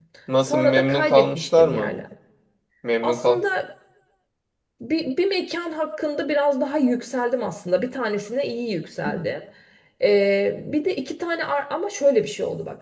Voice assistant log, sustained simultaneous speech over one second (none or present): present